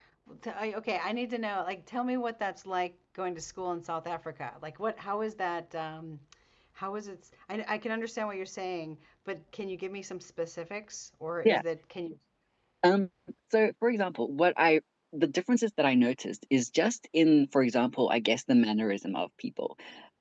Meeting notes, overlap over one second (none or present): none